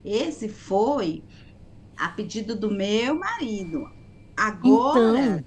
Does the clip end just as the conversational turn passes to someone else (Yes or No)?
No